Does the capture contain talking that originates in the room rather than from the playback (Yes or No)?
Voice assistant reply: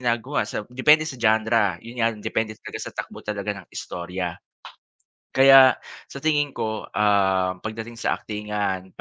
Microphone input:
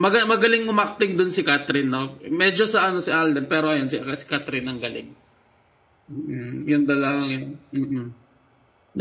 Yes